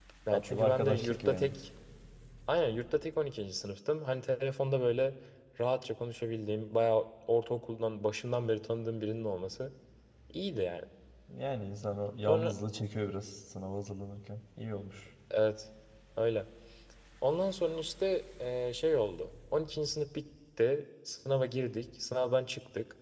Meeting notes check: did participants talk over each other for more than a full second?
Yes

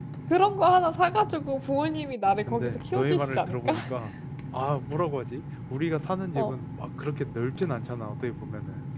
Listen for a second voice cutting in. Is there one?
Yes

